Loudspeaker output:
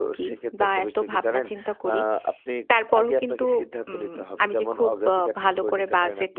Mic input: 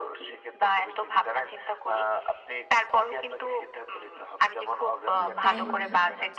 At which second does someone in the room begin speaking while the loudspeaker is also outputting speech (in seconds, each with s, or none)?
5.2 s